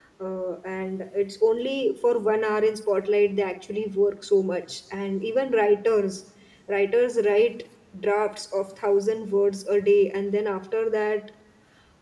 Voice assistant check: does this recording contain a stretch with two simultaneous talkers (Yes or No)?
No